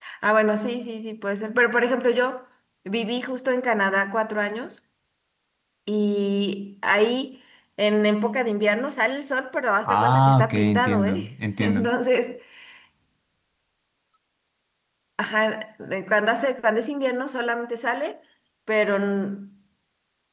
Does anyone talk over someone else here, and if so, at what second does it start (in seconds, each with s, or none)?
9.8 s